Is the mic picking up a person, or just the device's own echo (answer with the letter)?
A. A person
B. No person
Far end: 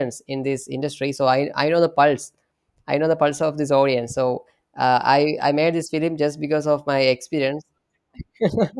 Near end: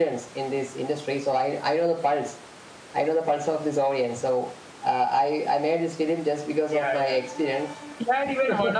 A